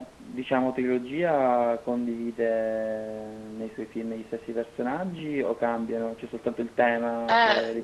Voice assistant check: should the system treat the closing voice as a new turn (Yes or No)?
Yes